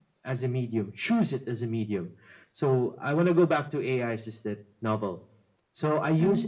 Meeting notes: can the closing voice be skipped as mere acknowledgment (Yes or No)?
Yes